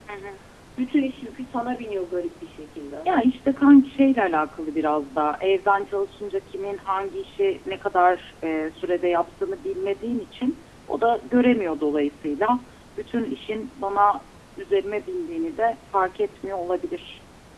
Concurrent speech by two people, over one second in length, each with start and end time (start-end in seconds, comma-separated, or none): none